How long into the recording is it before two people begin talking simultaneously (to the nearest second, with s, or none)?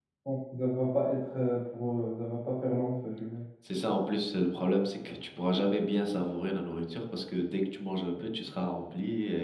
none